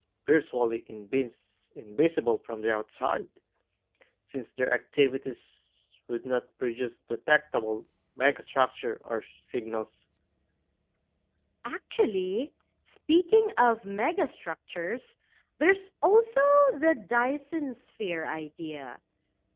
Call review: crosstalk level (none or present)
none